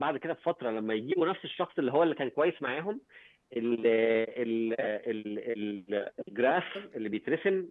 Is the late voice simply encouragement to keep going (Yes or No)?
Yes